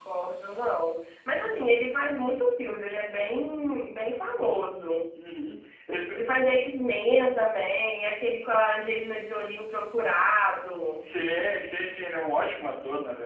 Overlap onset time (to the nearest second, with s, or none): none